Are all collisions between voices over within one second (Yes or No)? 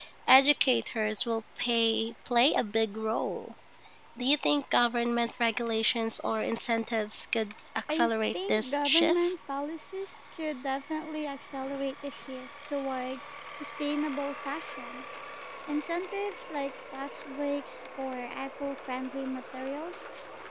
No